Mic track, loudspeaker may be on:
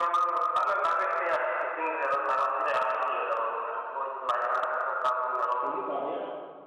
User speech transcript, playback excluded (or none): ᱠᱷᱟᱞᱤ ᱵᱟᱨᱭᱟ